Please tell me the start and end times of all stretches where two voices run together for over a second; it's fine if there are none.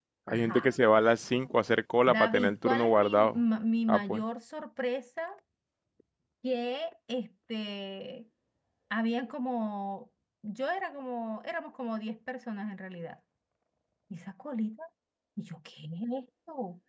2.1-3.4

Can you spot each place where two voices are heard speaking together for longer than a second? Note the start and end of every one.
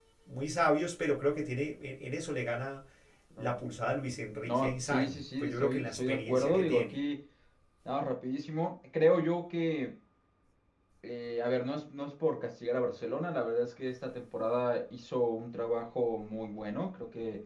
4.5-7.0

